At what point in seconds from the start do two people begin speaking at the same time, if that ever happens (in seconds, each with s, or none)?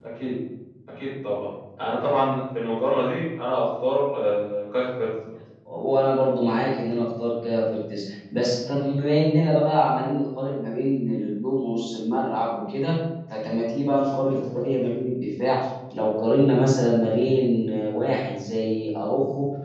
none